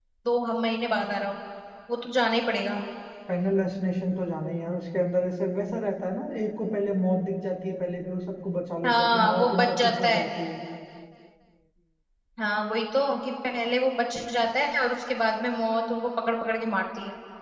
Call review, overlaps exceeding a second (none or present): present